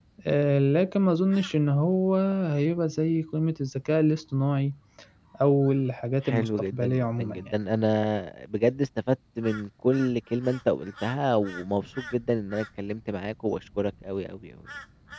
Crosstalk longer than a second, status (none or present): present